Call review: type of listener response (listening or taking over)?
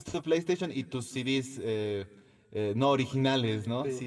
listening